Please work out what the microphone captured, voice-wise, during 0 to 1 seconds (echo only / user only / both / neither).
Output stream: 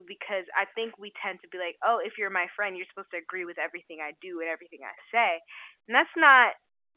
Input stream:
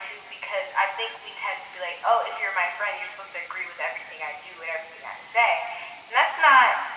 echo only